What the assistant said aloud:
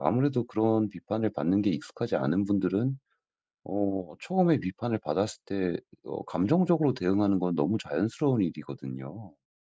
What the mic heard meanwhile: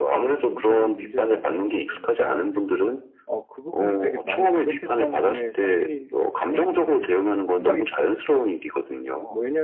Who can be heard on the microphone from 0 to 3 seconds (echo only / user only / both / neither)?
both